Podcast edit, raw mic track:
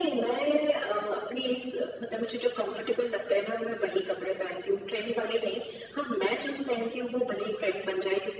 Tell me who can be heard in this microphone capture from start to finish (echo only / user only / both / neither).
echo only